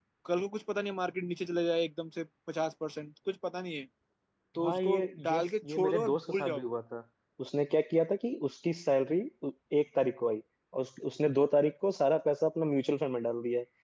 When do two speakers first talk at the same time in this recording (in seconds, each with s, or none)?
4.6 s